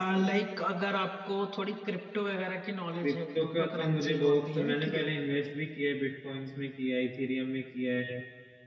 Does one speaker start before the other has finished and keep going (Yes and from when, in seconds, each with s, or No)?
Yes, from 3.0 s